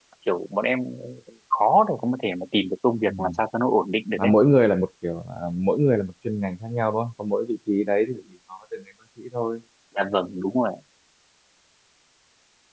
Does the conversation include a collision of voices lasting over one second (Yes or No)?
No